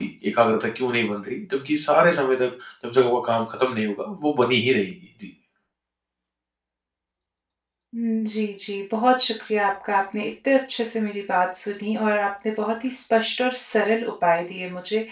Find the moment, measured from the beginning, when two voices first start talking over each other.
none

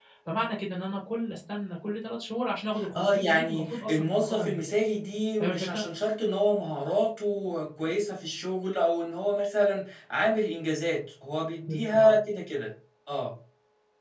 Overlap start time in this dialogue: 3.0 s

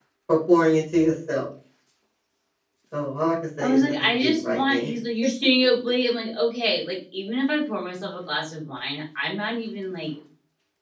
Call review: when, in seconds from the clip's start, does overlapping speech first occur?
3.6 s

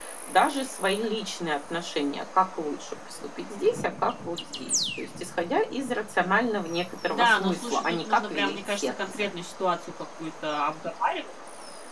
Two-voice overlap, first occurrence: 7.1 s

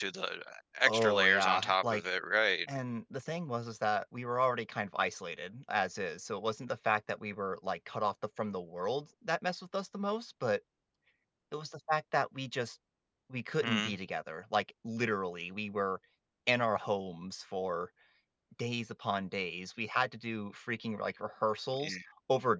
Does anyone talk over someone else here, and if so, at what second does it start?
0.8 s

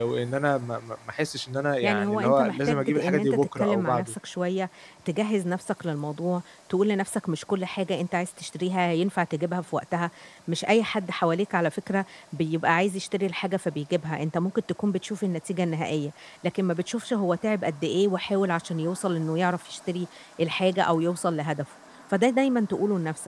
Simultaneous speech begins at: 1.8 s

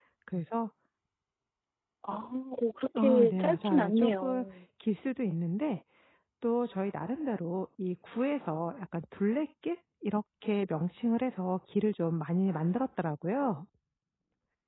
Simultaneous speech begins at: 3.0 s

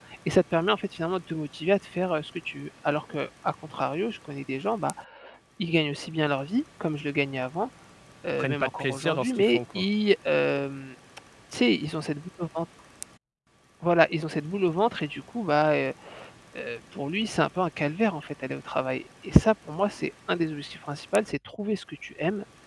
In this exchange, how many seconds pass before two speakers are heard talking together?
8.4 s

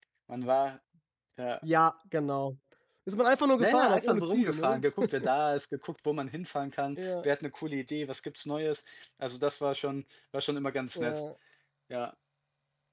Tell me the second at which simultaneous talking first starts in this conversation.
3.6 s

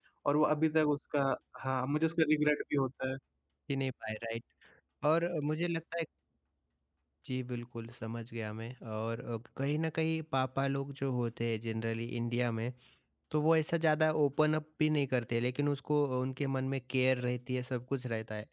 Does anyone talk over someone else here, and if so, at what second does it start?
none

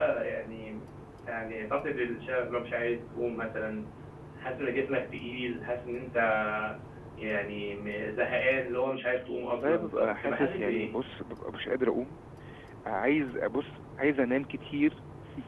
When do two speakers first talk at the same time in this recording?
9.4 s

